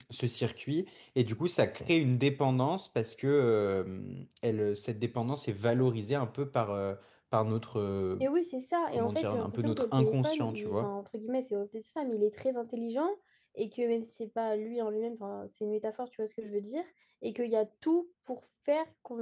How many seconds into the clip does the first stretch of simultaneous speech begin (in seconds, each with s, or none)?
8.9 s